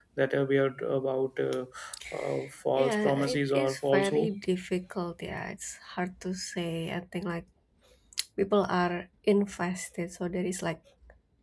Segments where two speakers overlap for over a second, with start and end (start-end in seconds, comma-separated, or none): 2.8-4.3